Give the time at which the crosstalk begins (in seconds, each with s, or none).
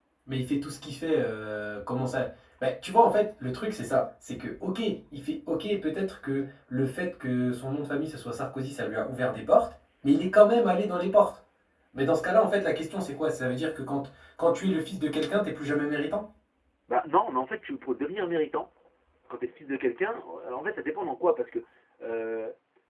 none